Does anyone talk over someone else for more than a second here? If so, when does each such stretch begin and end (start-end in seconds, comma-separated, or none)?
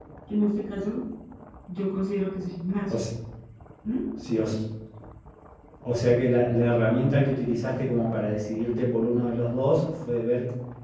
none